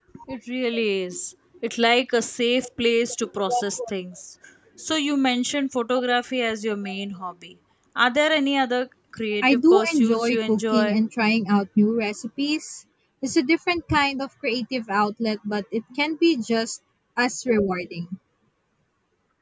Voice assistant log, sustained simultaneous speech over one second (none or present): present